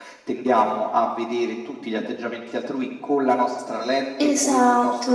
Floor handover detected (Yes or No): No